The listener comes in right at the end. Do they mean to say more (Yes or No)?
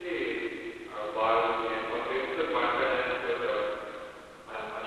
Yes